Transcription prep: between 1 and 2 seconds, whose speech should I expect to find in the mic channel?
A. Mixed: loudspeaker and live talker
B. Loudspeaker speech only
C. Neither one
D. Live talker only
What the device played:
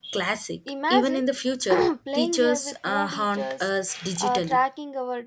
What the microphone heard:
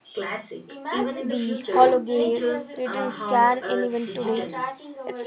A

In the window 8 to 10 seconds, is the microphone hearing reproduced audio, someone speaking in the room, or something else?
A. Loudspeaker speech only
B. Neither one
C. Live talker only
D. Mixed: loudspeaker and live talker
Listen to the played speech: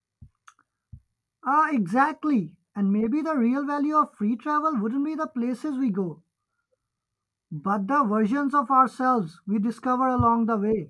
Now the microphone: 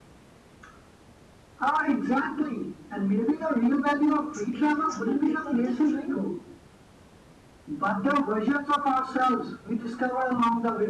A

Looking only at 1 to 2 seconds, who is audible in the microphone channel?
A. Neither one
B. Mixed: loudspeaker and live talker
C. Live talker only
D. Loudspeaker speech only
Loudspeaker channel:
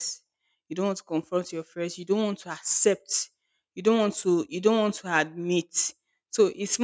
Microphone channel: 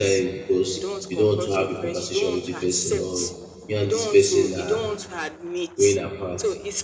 B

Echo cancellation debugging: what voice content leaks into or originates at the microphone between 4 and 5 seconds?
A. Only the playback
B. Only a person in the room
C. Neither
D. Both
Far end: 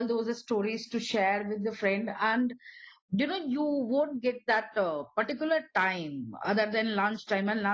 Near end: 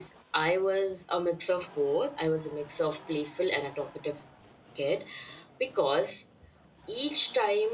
B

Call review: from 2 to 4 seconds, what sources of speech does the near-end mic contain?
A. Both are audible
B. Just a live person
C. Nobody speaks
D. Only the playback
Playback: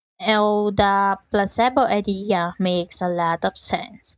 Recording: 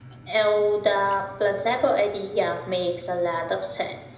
D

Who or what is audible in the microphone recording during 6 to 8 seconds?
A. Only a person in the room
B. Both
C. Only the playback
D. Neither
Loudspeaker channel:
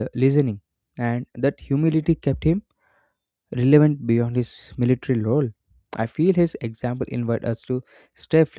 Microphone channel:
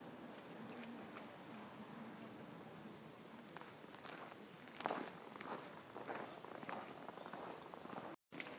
D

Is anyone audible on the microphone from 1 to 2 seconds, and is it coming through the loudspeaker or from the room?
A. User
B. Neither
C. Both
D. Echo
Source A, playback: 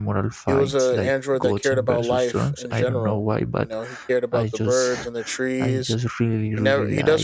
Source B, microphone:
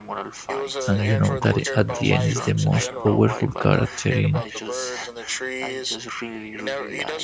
C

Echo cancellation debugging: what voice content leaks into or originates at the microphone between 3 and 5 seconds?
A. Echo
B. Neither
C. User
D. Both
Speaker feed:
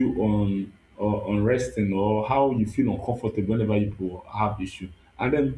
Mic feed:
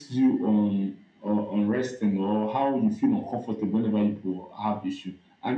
A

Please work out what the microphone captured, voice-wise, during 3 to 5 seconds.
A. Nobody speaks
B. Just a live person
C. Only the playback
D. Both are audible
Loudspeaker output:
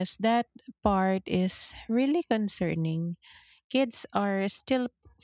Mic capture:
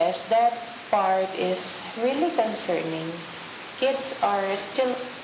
C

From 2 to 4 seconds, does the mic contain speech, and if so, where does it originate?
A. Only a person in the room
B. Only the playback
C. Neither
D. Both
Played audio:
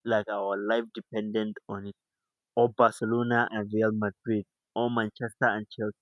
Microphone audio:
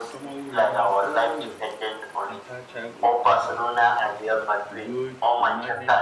D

